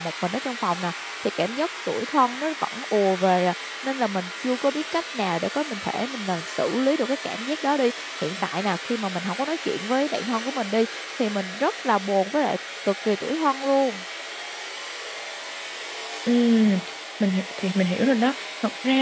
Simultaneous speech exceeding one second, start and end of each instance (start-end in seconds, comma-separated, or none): none